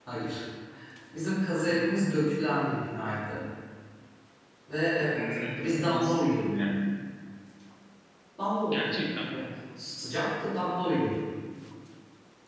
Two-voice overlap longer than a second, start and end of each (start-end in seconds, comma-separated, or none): 5.1-6.5